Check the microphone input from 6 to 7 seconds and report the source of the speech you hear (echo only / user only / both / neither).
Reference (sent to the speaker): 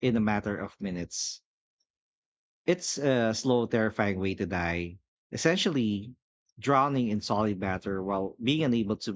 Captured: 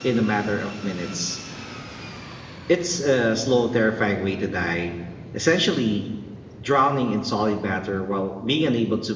echo only